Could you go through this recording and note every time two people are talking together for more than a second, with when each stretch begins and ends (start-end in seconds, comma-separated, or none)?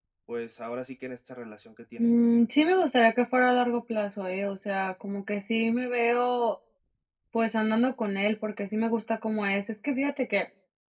none